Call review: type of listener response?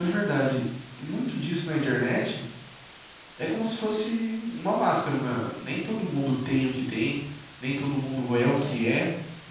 listening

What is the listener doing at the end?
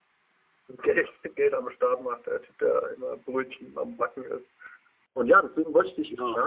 listening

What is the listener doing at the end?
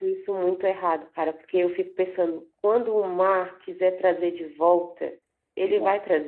listening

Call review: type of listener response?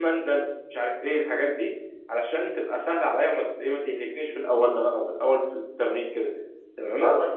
taking over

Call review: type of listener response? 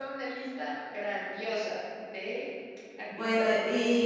taking over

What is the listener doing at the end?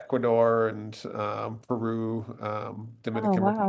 listening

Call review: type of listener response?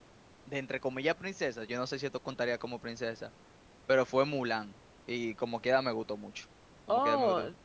taking over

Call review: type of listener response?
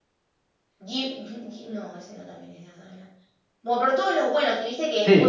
listening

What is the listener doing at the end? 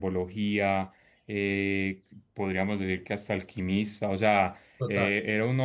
listening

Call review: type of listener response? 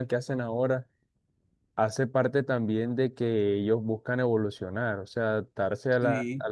listening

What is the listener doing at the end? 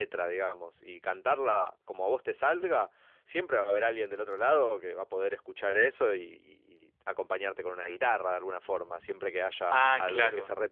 listening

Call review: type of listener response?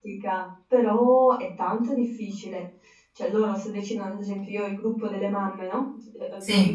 listening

